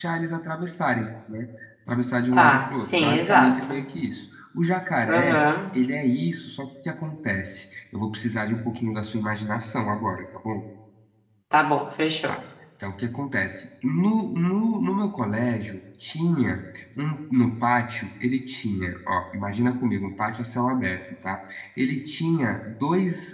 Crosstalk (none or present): present